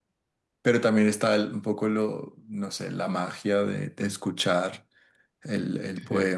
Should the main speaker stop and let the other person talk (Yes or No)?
Yes